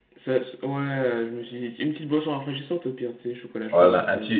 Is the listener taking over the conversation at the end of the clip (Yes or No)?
Yes